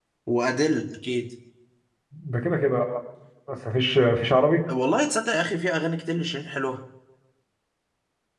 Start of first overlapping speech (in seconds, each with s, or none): none